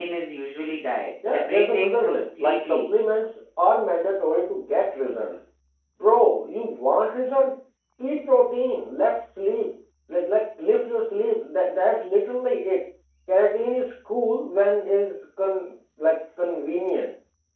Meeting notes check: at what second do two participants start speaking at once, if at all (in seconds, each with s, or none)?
1.2 s